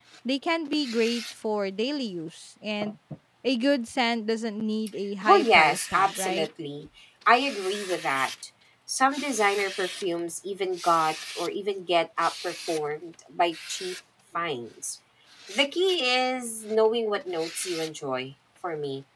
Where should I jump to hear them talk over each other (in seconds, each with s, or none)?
5.3 s